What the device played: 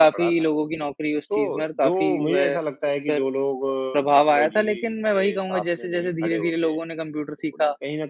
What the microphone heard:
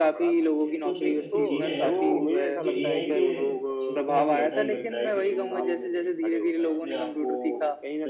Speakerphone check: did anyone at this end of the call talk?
Yes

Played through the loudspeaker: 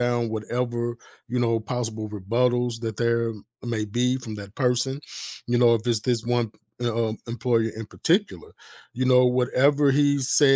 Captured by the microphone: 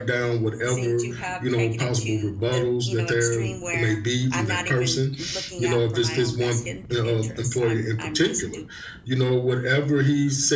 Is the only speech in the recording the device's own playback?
No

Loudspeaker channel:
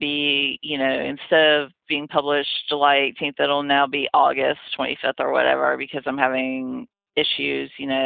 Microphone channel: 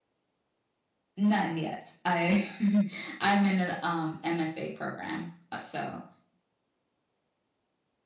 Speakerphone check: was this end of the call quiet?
No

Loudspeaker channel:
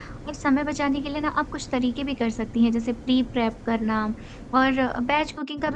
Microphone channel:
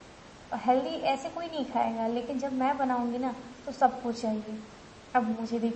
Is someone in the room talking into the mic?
Yes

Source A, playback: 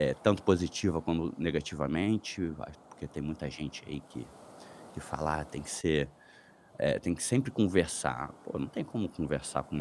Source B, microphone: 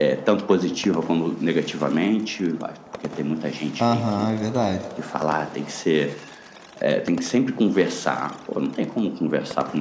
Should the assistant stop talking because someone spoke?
Yes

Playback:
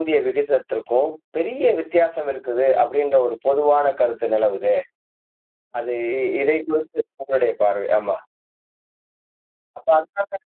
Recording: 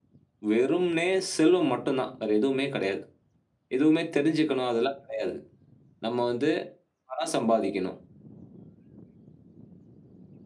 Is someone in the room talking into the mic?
Yes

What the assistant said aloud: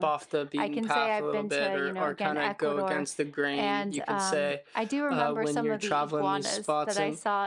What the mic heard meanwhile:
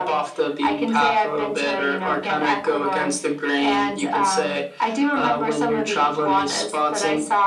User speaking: No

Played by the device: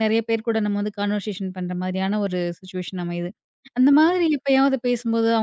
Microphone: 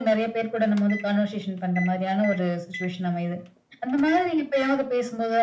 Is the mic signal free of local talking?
Yes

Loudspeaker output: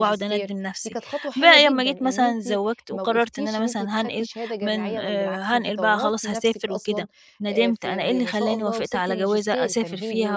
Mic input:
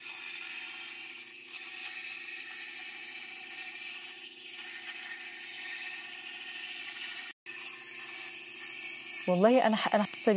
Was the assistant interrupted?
Yes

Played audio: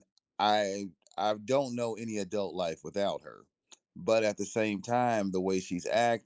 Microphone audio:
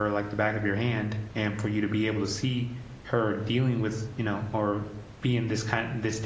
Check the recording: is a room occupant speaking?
Yes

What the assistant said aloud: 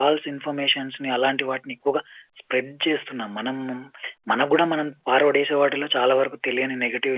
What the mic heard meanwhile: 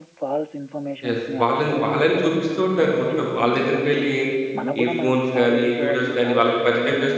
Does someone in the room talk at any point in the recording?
Yes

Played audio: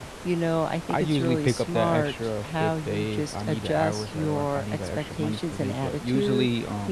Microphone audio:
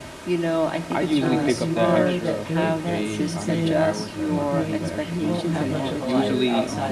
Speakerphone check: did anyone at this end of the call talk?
Yes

